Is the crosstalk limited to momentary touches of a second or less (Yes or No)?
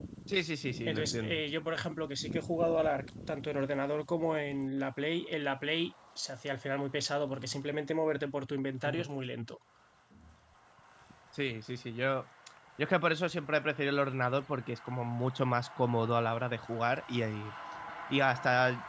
Yes